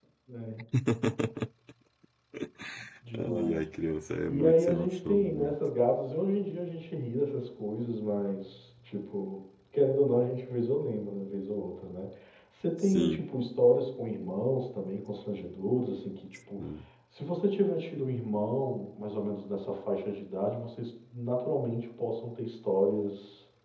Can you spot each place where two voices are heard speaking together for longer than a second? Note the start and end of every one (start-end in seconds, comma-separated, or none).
4.3-5.5